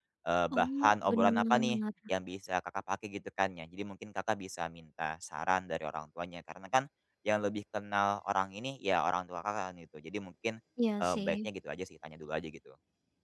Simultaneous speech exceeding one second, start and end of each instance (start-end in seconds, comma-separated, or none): 0.5-1.8